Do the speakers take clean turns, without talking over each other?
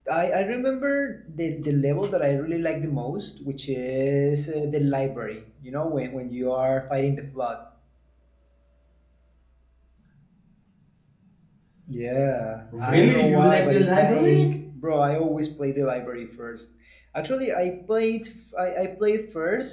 No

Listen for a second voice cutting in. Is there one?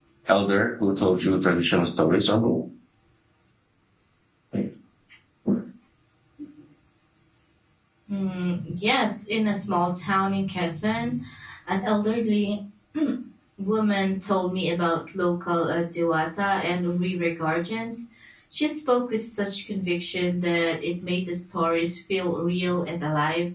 No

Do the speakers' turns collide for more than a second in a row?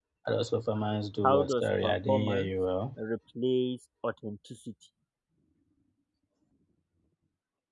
Yes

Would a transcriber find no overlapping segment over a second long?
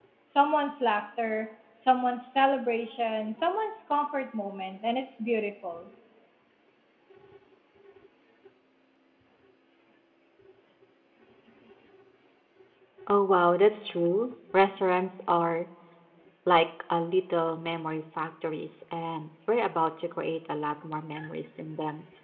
Yes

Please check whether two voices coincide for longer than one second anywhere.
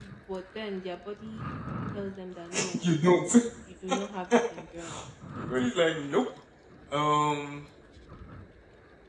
No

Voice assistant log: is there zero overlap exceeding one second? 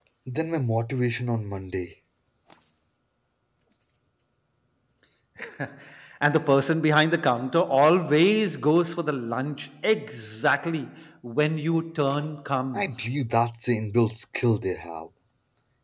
Yes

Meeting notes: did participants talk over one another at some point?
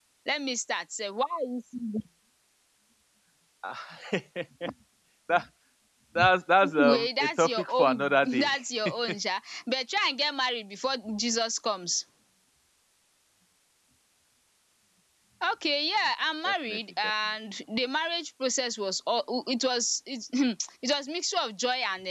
Yes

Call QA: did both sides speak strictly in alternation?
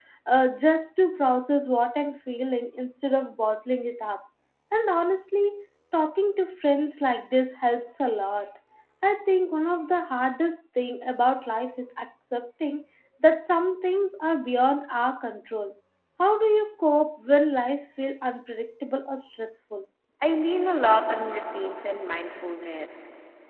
Yes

